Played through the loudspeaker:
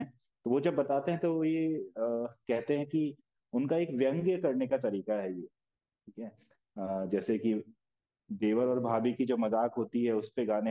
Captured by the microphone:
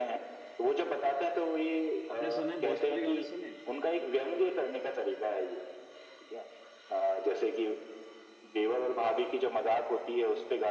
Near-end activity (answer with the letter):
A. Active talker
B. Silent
A